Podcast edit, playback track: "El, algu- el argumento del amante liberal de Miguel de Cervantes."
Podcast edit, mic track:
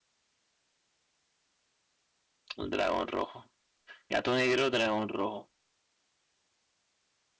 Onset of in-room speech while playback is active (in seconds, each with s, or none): 2.6 s